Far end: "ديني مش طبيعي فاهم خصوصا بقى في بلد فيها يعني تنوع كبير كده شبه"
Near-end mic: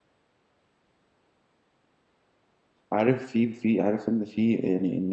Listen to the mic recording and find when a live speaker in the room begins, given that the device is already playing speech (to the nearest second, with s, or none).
3 s